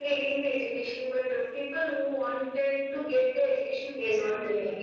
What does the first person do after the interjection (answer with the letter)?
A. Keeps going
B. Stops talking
B